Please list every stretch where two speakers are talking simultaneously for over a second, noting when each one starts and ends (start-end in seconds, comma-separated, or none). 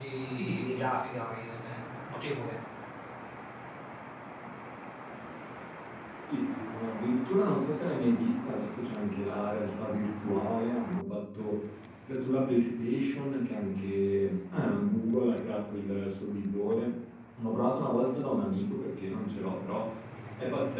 none